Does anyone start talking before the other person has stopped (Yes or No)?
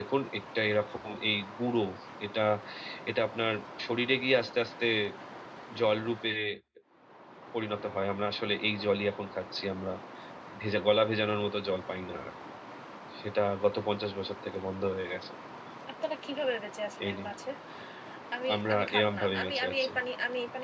Yes